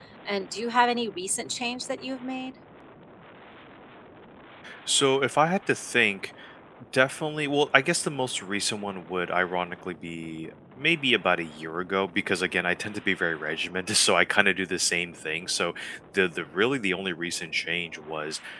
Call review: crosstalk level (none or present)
none